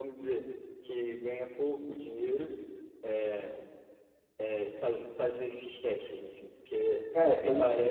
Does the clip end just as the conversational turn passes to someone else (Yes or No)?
No